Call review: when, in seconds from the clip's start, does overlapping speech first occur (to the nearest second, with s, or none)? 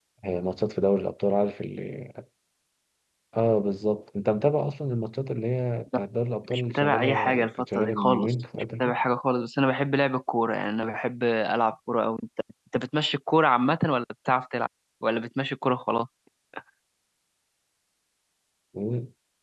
7 s